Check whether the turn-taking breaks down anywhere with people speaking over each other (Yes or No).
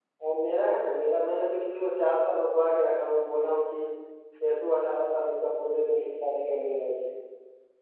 No